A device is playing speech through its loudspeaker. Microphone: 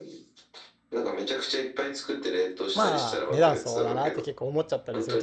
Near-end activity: present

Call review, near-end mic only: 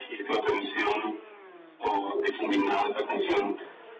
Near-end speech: none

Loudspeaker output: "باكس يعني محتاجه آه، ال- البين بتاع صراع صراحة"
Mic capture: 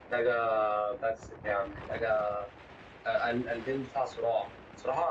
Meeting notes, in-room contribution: none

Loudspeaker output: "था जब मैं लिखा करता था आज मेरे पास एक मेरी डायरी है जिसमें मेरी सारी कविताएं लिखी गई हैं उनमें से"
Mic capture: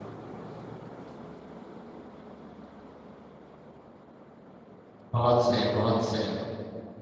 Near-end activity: present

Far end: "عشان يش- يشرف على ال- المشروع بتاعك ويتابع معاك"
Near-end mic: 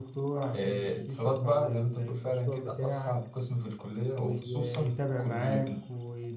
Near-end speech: present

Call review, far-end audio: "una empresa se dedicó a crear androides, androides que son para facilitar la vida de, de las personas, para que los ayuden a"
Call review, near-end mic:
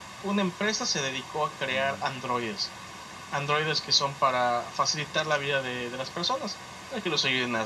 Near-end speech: present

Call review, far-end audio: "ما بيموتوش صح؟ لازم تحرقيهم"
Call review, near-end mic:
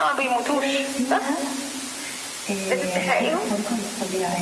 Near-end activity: present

